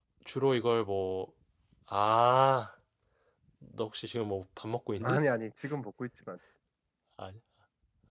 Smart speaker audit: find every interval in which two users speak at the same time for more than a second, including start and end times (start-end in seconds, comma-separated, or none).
none